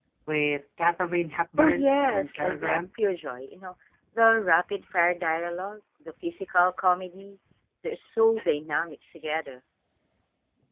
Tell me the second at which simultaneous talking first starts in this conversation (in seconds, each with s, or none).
1.6 s